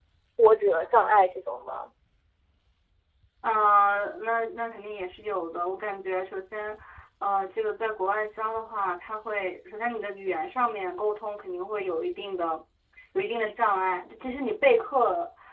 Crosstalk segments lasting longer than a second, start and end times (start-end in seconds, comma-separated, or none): none